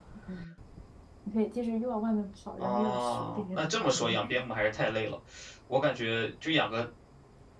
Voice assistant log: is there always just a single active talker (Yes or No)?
No